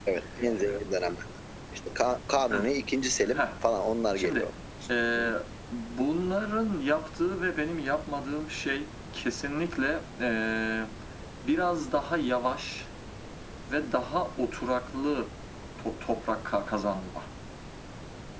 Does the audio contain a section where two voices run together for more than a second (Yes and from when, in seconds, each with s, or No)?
No